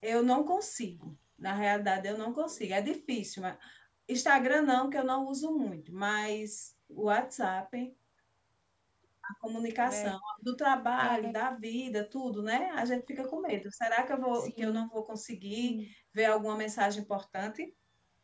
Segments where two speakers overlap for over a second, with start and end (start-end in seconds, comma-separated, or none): none